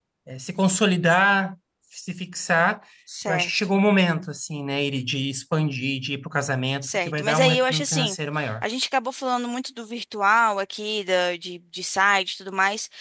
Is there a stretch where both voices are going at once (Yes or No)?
Yes